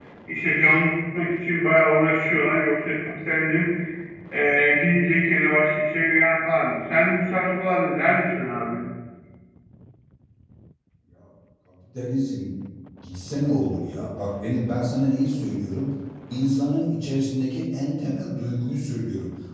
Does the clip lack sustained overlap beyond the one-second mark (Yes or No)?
Yes